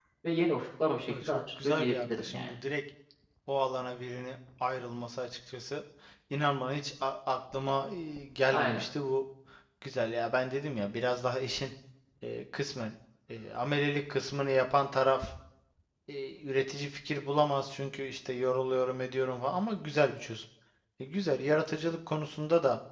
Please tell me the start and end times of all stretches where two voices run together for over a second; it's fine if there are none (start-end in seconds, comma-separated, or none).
1.1-2.5